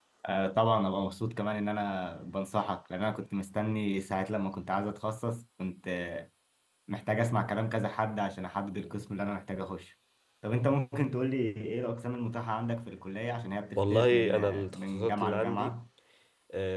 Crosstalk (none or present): present